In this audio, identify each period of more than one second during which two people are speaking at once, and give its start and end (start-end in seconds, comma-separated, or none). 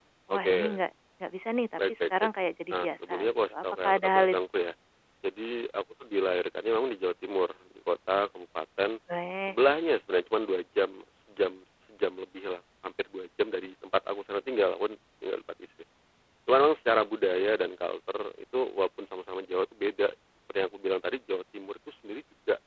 2.7-4.4